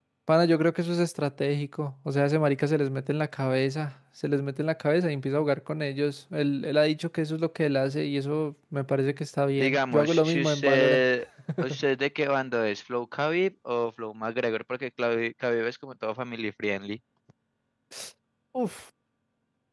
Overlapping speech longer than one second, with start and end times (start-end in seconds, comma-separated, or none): 9.6-11.0